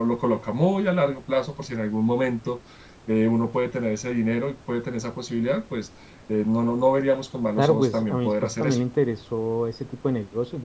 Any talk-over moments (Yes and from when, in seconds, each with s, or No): Yes, from 7.6 s